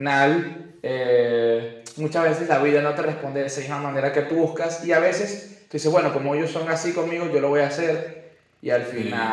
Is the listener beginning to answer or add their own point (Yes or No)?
Yes